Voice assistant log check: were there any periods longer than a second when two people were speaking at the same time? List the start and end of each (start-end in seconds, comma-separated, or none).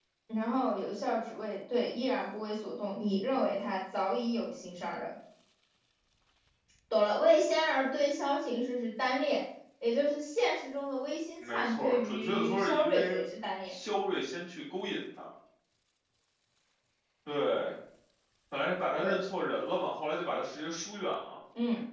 11.4-13.2